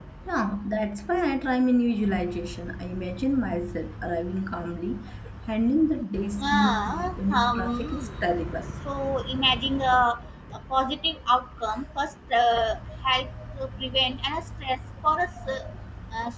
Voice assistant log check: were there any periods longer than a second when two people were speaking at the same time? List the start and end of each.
6.4-8.1

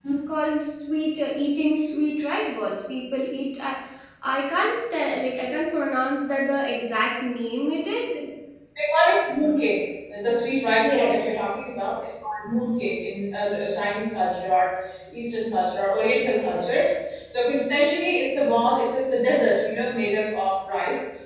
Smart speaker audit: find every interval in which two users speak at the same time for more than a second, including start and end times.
none

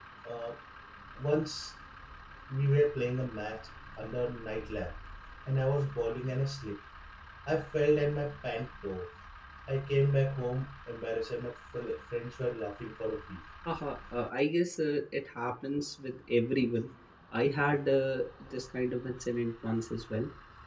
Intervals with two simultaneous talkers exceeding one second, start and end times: none

